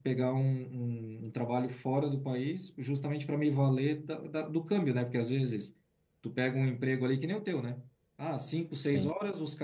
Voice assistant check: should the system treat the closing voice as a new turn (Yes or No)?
No